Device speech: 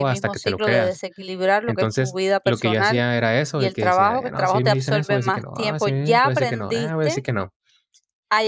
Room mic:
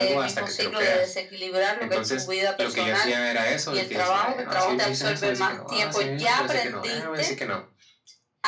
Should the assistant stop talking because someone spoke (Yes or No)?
No